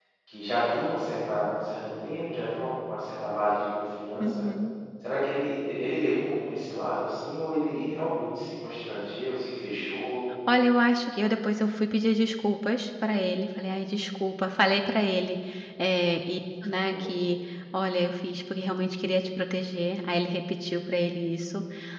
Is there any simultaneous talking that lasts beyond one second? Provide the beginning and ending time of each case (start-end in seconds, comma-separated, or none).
none